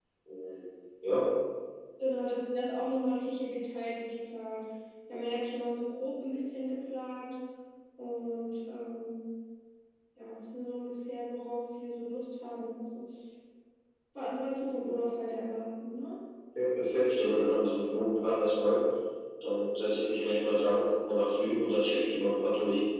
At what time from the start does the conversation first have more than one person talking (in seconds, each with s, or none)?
none